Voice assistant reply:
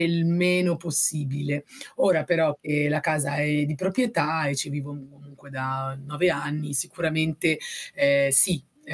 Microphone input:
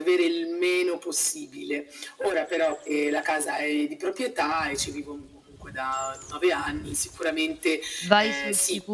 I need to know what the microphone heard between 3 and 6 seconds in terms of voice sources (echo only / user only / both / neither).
echo only